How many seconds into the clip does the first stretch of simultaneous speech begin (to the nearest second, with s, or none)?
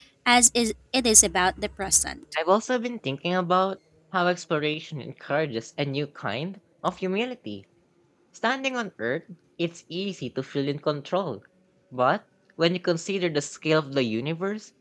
none